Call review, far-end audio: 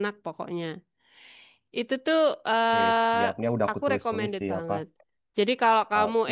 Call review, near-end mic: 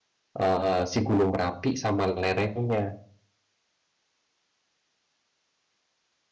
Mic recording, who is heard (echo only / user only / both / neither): user only